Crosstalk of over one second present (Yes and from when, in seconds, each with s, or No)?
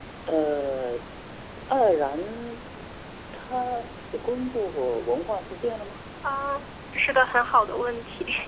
No